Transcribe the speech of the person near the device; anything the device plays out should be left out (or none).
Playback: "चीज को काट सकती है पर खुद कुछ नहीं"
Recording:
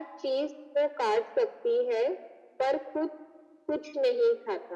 none